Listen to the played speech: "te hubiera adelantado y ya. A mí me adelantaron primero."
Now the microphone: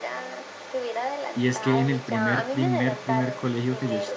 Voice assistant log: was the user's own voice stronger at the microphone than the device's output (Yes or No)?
Yes